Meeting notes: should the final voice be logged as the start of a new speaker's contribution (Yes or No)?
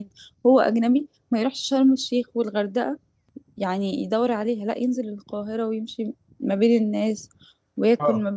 Yes